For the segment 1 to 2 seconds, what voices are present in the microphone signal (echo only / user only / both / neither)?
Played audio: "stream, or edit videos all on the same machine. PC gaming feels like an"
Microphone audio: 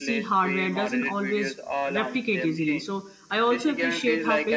both